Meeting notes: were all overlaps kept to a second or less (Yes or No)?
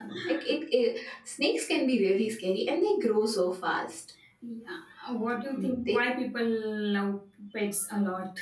Yes